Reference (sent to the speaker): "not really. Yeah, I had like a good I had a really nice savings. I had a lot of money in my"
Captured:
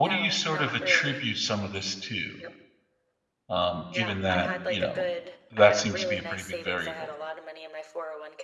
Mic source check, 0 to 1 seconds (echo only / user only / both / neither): both